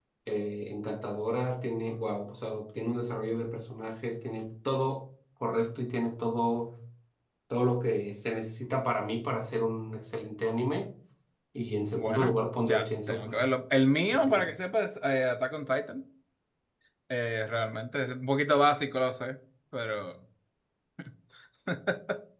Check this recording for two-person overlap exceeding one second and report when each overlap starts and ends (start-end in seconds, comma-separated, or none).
12.0-13.4